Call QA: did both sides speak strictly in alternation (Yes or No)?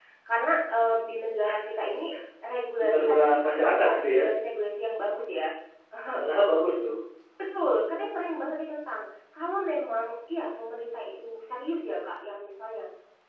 No